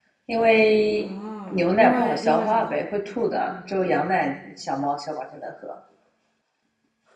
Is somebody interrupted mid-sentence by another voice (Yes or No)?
Yes